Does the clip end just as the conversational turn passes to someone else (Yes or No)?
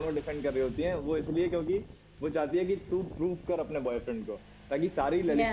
No